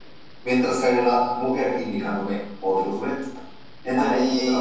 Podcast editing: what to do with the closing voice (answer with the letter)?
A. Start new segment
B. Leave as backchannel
B